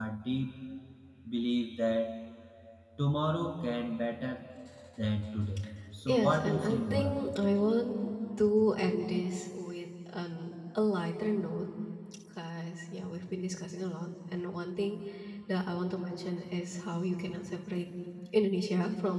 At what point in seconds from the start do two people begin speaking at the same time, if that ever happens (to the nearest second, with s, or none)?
6 s